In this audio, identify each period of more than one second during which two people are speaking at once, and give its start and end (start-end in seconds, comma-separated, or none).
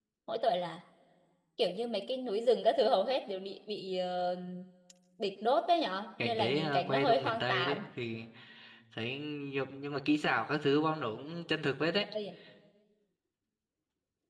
6.2-7.8